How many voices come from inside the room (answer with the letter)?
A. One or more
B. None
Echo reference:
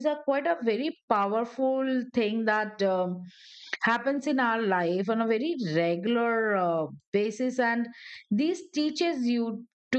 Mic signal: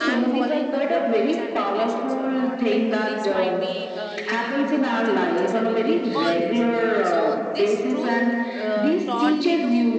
A